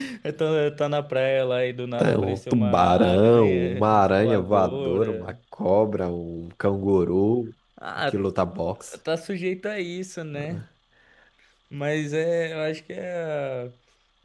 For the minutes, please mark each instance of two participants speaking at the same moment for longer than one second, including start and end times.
2.0-5.3

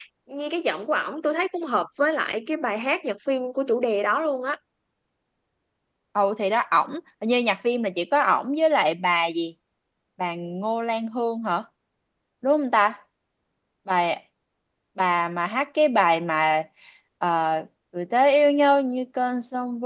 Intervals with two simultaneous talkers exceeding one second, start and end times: none

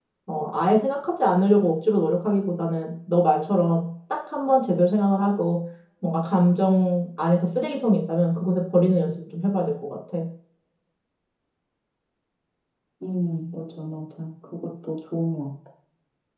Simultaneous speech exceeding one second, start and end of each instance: none

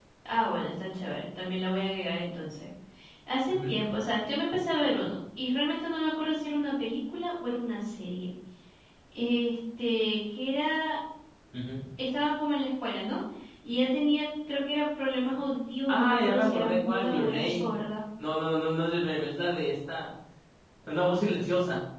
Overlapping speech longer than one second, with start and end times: 15.9-17.8

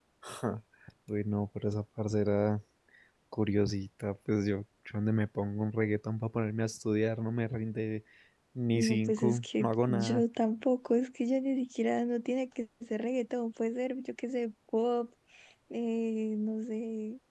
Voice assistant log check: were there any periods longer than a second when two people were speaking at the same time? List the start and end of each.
8.8-10.2

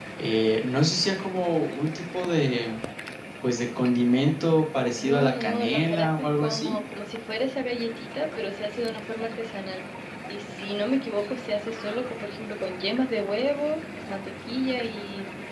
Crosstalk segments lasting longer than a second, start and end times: 5.0-6.8

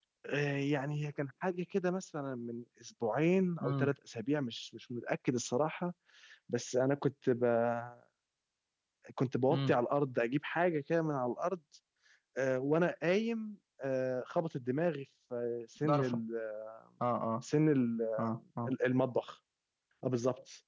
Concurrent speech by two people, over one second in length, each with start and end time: none

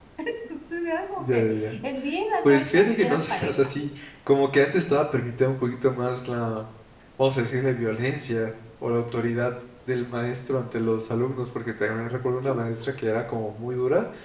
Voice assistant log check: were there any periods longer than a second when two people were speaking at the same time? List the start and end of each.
2.4-3.7

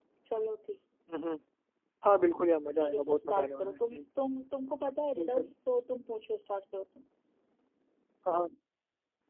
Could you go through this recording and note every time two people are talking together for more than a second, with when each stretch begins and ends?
2.8-4.0

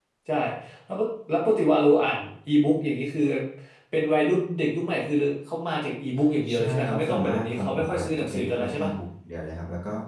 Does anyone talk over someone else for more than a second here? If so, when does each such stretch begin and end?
6.5-8.9

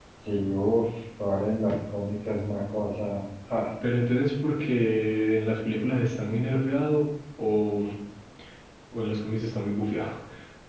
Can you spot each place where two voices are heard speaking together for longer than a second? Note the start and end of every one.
none

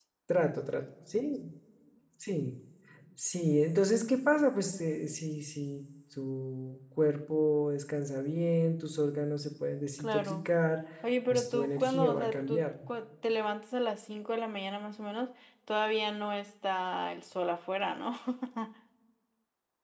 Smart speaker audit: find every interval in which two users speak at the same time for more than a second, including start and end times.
11.3-12.7

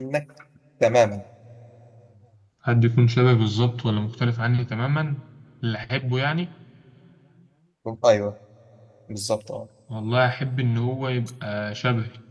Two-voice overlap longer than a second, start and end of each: none

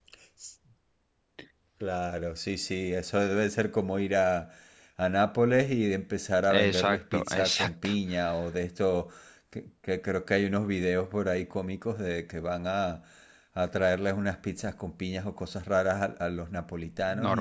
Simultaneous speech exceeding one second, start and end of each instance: 6.5-7.9

